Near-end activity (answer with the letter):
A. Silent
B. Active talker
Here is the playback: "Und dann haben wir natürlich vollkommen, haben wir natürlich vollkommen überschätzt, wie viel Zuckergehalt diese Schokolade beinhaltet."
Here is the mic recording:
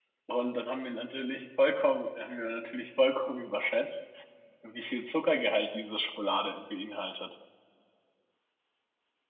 A